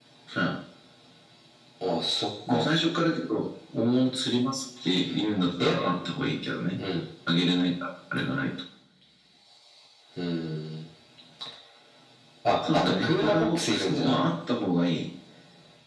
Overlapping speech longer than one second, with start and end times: 12.7-14.2

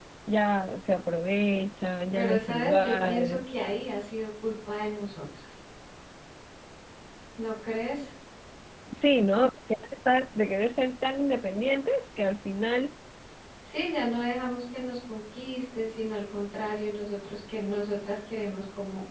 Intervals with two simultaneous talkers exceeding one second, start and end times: 2.1-3.4

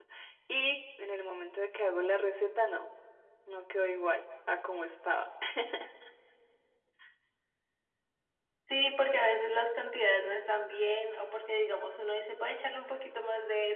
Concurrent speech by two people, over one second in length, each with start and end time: none

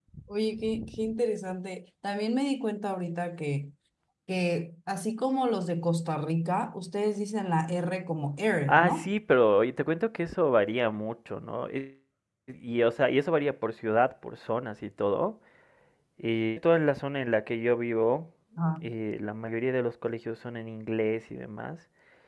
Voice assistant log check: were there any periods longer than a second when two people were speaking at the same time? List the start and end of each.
none

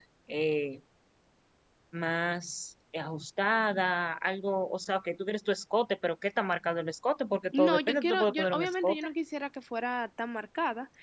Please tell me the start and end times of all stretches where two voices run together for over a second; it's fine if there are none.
7.6-9.0

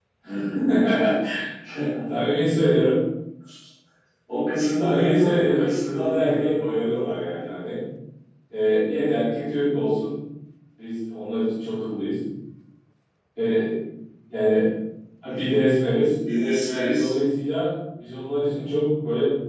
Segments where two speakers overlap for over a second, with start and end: 4.8-6.7

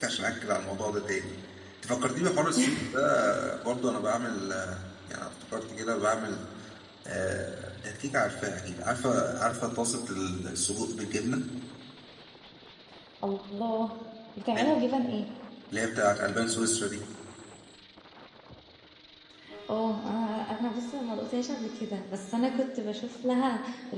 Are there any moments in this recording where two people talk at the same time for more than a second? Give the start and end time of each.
none

